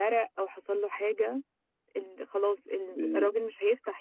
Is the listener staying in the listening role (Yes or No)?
Yes